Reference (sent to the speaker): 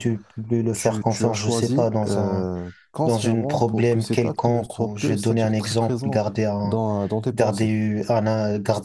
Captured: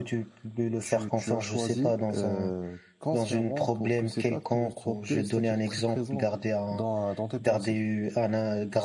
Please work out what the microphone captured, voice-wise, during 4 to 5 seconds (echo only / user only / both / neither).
echo only